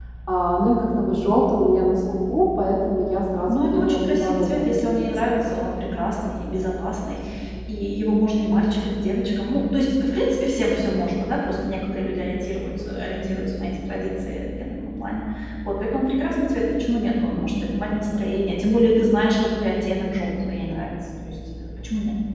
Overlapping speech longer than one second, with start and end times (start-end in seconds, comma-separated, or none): 3.4-5.3